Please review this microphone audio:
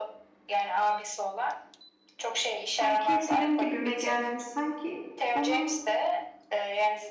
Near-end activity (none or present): present